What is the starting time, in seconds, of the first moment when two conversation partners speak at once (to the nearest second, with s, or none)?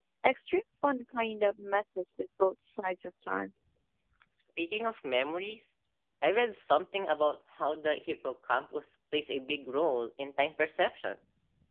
none